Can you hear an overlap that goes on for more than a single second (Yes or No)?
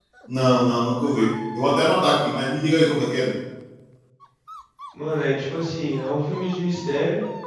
No